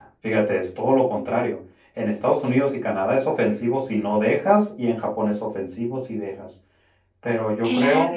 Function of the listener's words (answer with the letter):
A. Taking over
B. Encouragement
B